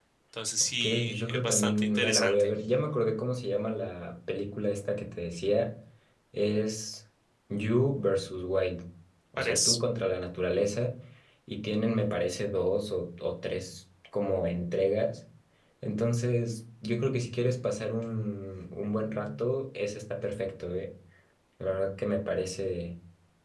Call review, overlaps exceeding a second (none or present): present